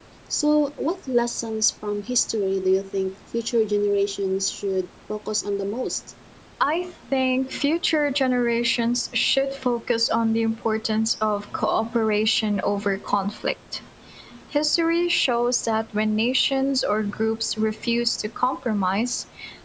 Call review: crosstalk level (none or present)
none